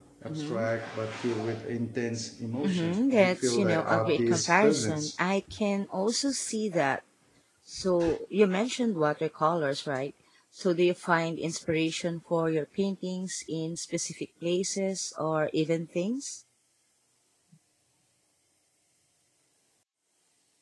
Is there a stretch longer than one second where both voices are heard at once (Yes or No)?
Yes